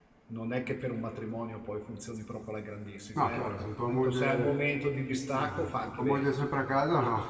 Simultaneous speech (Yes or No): Yes